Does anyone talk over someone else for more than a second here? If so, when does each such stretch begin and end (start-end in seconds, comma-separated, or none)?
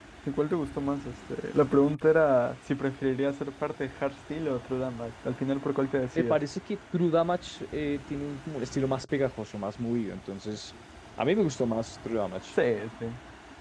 none